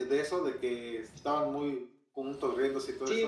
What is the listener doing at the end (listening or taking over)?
taking over